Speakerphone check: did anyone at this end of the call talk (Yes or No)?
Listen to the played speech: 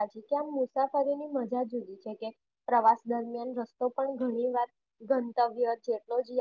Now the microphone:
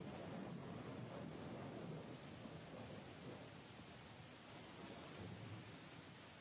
No